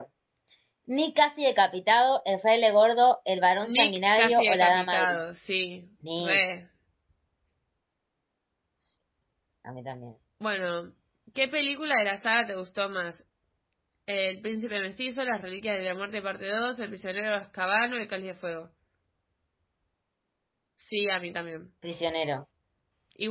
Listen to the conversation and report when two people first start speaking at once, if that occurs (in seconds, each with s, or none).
3.6 s